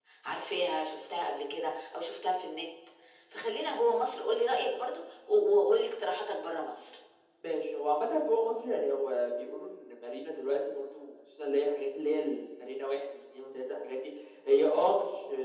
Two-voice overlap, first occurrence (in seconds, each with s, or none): none